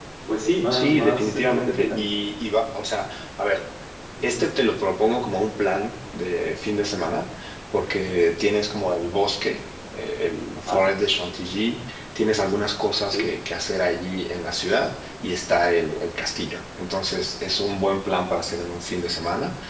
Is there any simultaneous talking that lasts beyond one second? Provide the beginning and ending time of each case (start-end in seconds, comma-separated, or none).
0.7-2.0